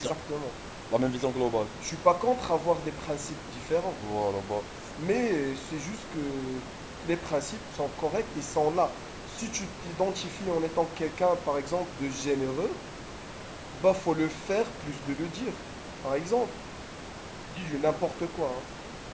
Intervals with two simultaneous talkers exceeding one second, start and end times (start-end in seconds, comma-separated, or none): none